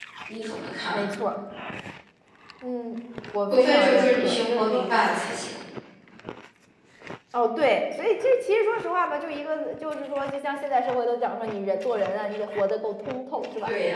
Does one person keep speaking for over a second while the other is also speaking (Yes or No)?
Yes